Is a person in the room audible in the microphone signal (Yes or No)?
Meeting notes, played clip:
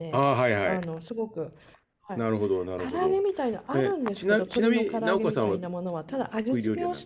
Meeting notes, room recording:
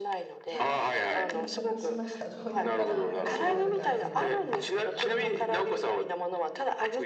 Yes